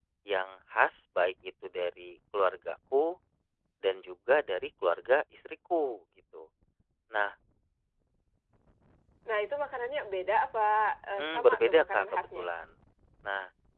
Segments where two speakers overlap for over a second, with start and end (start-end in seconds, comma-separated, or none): 11.2-12.5